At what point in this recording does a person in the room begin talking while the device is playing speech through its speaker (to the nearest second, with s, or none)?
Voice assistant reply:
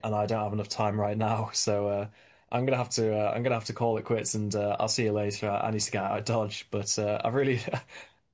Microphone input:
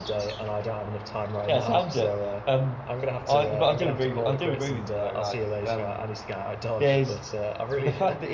1 s